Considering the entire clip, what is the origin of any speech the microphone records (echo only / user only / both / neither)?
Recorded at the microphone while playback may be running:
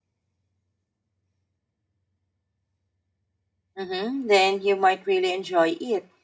user only